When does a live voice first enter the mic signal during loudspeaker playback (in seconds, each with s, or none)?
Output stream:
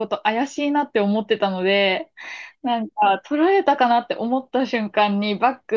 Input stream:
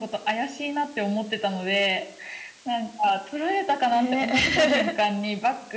3.9 s